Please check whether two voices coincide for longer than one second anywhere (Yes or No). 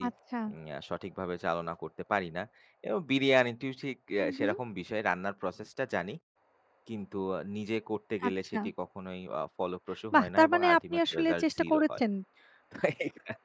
Yes